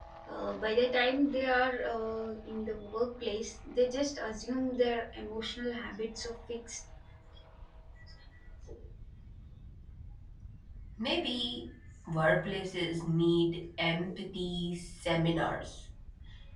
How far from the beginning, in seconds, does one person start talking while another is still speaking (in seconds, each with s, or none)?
none